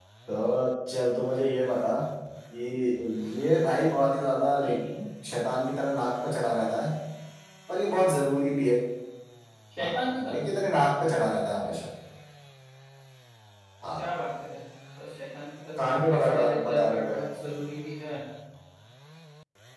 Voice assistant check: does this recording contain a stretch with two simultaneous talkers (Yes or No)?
Yes